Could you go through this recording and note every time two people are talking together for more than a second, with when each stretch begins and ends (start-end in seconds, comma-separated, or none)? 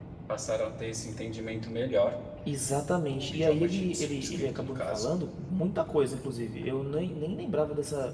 3.0-5.1